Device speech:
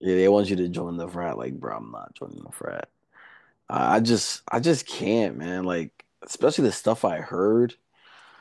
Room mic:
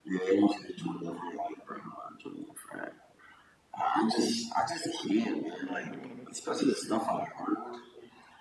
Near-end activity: present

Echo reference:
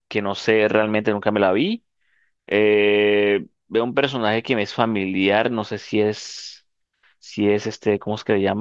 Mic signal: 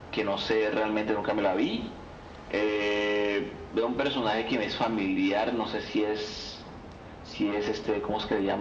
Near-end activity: none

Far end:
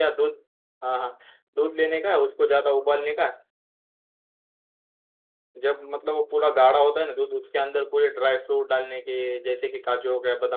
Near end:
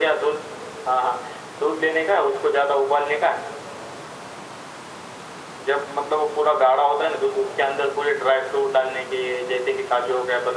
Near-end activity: none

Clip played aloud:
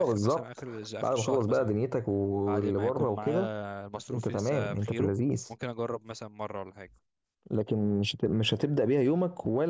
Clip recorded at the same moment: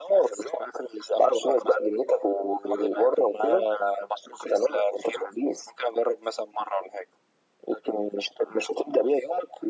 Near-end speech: none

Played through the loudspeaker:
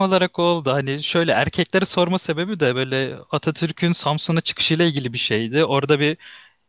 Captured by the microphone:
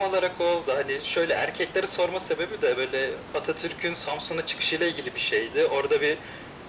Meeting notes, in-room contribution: none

